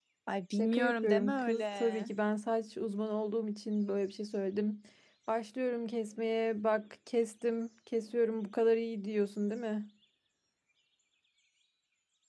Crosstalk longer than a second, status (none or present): present